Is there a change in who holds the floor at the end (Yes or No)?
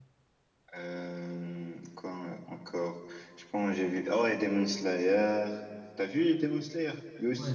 Yes